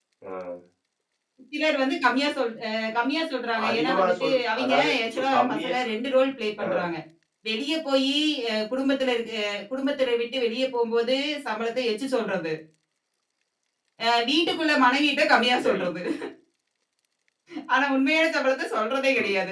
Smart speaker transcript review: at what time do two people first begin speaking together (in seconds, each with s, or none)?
3.7 s